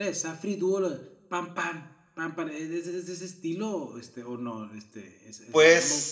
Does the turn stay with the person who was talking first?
No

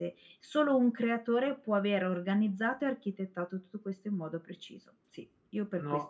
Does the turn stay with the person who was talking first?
No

